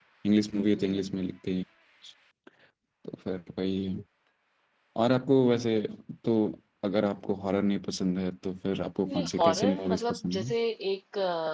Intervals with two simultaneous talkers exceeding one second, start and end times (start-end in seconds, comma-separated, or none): 9.1-10.5